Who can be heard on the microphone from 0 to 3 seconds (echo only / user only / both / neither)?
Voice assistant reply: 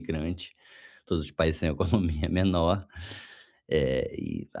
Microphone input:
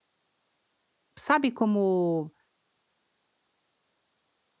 user only